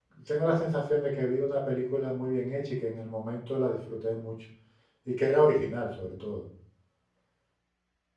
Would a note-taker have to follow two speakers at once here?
No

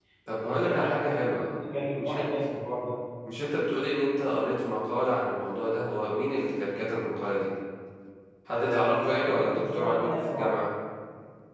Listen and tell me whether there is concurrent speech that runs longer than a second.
Yes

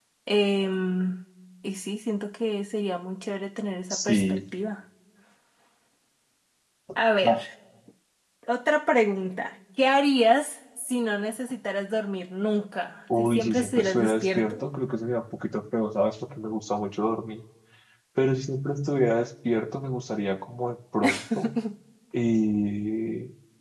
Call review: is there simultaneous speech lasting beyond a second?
Yes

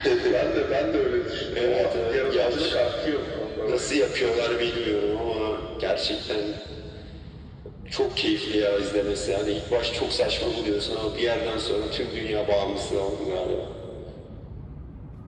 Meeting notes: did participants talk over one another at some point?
Yes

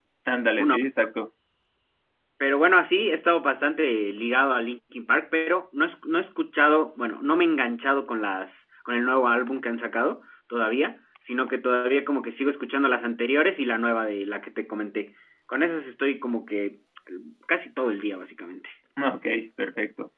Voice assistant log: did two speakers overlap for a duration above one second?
No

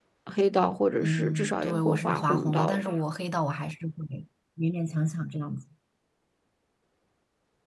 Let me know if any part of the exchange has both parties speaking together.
Yes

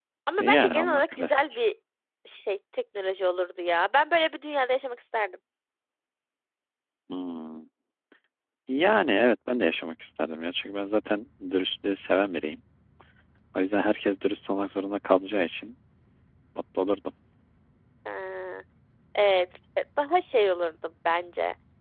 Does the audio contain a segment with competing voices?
Yes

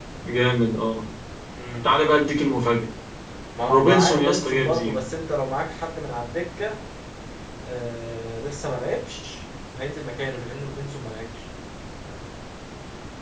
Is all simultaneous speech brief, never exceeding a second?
No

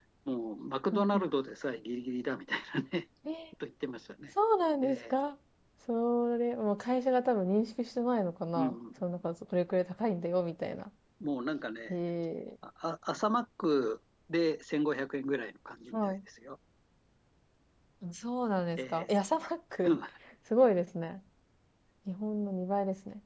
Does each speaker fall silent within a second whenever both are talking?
Yes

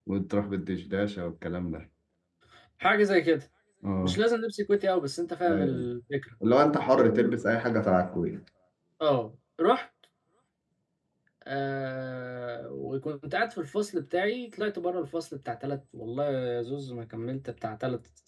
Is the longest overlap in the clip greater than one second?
No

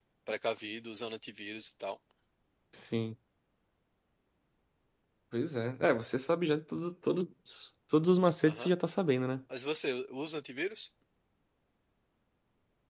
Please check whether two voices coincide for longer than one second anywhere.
No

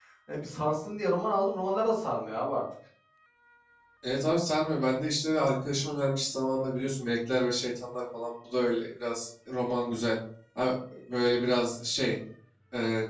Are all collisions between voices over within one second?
Yes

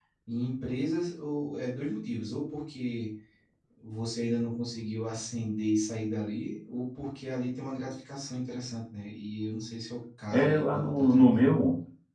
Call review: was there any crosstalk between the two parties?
Yes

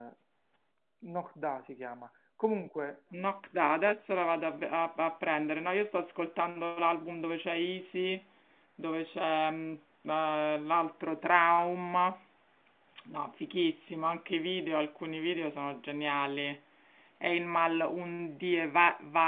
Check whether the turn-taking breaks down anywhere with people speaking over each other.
No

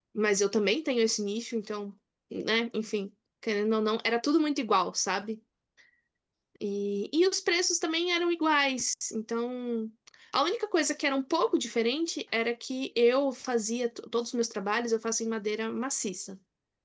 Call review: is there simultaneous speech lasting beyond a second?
No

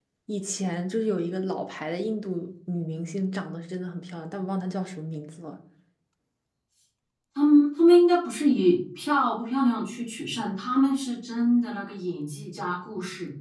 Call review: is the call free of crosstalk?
Yes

